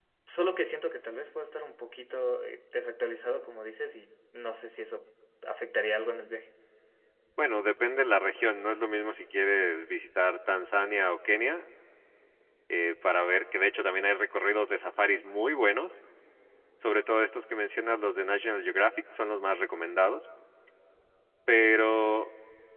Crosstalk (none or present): none